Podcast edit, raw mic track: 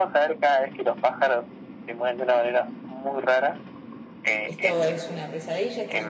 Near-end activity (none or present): present